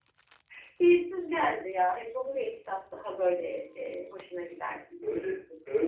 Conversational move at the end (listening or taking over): taking over